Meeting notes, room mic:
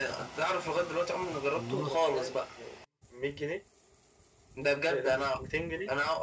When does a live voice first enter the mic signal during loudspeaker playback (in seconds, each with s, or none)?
1.5 s